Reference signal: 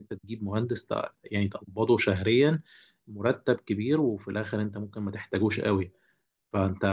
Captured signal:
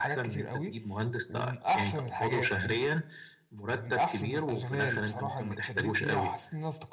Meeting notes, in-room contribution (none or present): present